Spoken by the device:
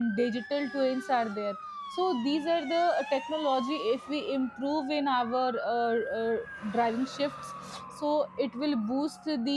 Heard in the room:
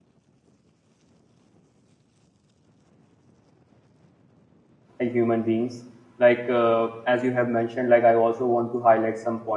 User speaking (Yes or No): Yes